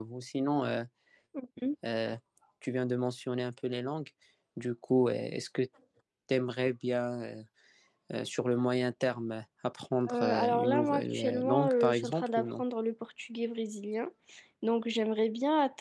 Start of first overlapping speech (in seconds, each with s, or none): 10.1 s